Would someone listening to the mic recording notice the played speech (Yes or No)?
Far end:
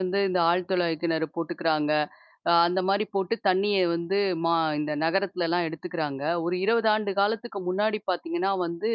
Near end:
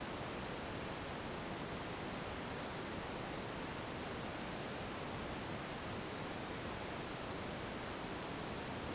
No